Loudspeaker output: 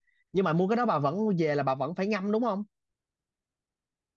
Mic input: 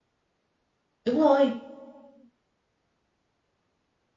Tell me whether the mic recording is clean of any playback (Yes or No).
Yes